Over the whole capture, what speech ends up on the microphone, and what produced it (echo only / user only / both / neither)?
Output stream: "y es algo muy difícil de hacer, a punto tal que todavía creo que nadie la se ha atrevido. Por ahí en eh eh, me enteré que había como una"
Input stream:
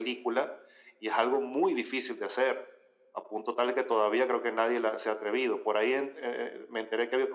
echo only